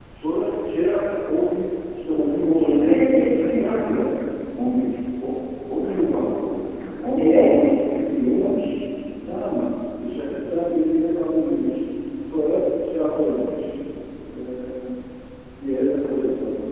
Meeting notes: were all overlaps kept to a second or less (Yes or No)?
No